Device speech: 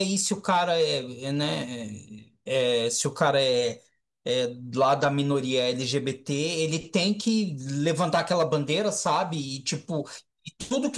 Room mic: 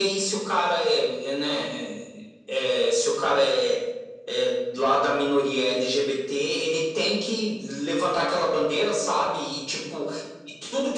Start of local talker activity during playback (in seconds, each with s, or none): none